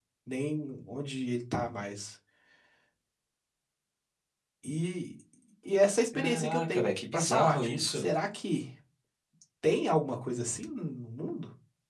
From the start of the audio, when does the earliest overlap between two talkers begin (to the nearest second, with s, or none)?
6 s